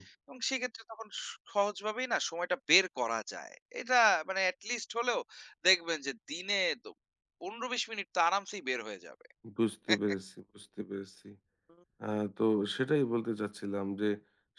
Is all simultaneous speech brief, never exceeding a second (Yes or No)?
Yes